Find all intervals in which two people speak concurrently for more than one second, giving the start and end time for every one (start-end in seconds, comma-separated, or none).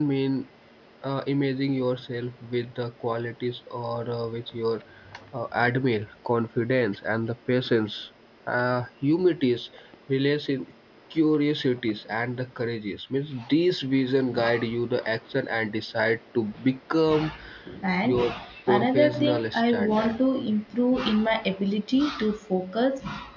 18.7-20.1